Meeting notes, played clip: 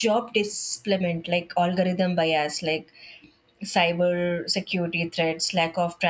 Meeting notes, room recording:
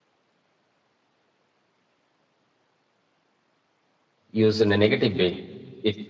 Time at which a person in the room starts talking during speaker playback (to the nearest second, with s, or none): 4 s